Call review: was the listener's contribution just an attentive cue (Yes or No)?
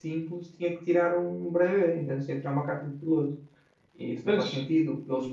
Yes